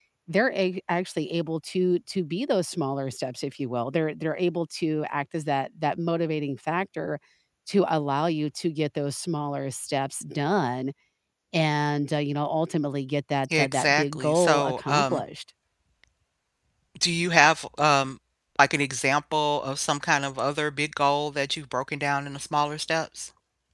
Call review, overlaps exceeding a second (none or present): present